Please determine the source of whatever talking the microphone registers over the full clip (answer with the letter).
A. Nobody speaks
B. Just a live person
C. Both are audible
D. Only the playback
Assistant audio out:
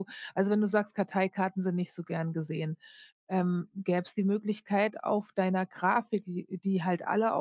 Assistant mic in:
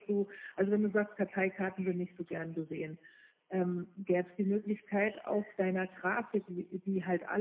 D